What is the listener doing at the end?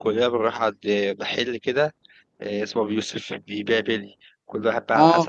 listening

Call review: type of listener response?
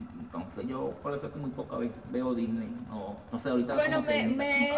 taking over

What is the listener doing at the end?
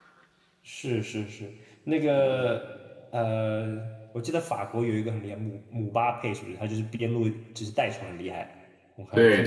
taking over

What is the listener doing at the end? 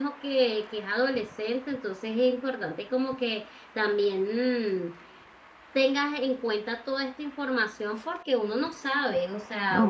taking over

